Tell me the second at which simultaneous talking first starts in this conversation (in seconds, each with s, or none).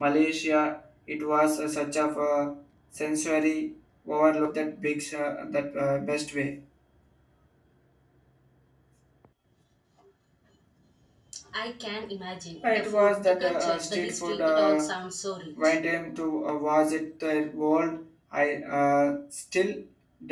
12.6 s